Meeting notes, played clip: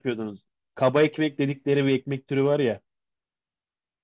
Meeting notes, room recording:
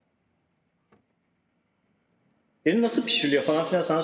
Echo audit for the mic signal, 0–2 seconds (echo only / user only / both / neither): neither